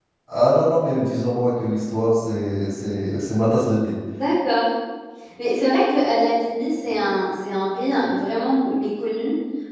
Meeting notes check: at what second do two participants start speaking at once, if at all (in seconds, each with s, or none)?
none